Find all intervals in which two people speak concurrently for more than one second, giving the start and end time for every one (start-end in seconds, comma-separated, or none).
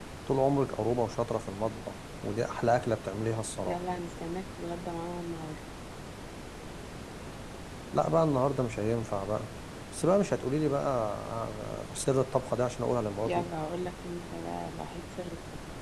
none